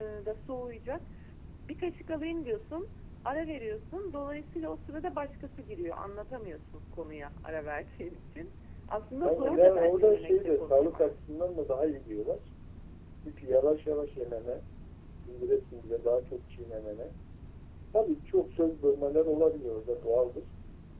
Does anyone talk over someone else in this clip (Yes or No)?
Yes